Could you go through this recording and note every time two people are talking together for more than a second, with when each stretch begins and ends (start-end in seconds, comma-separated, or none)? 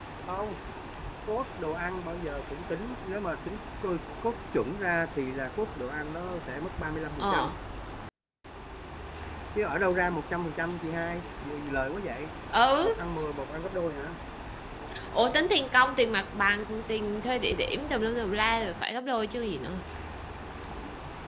none